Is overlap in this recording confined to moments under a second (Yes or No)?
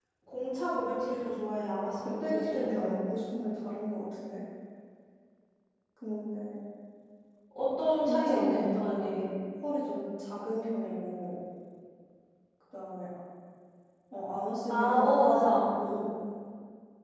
No